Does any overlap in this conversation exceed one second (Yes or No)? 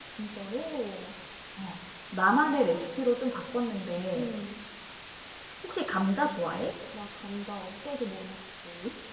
No